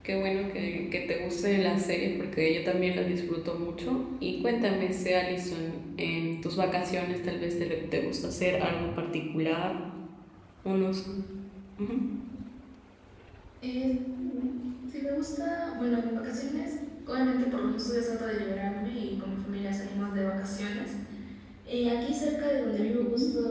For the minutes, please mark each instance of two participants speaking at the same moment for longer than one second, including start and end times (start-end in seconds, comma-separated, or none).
none